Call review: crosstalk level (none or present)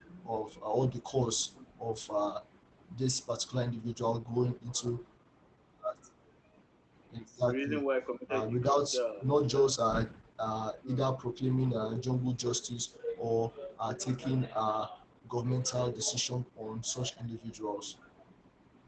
present